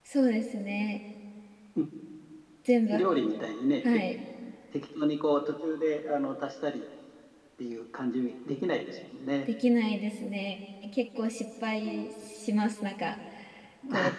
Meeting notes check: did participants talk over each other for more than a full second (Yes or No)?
No